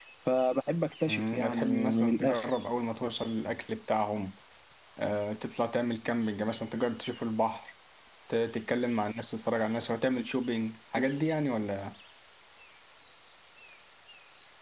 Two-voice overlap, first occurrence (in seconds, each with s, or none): 1.1 s